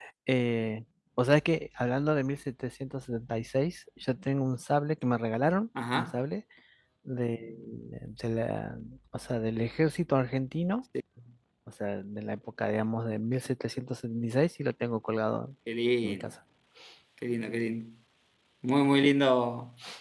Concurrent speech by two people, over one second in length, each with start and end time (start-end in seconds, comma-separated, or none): none